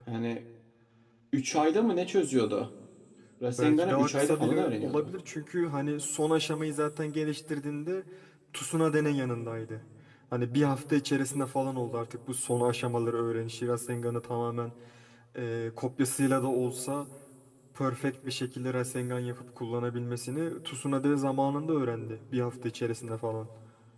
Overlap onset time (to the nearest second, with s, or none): 4 s